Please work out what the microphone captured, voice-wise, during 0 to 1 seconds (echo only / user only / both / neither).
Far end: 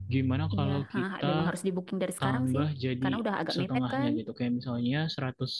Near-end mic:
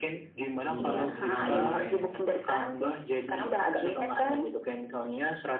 both